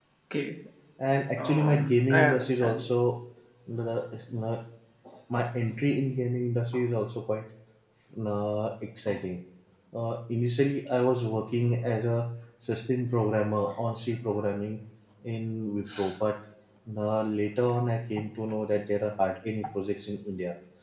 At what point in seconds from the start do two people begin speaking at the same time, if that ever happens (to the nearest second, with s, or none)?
1 s